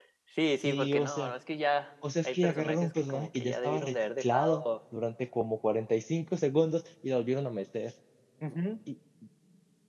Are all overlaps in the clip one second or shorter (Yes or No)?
No